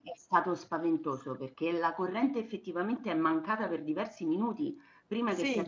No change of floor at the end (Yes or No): Yes